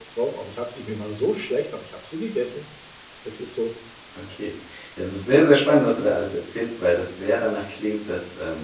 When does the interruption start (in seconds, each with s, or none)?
none